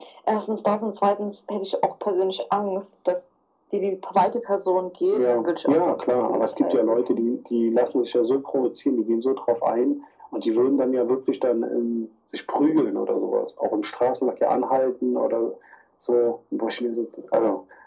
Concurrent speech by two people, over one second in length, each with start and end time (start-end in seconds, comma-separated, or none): 5.1-7.2